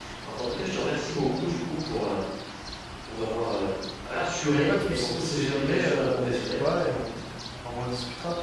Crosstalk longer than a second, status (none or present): present